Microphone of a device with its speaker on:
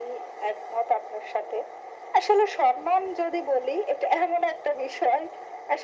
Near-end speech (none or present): none